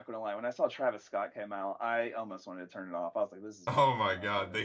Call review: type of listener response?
taking over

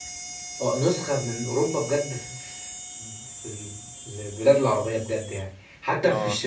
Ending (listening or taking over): listening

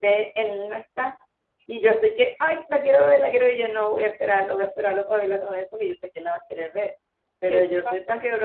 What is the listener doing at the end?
listening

